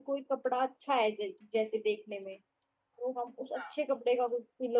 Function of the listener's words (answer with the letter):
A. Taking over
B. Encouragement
B